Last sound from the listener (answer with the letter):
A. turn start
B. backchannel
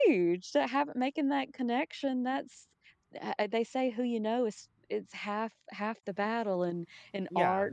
B